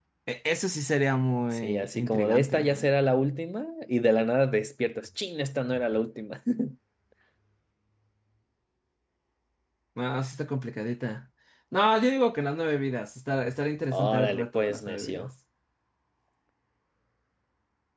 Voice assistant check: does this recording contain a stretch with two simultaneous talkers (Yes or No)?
Yes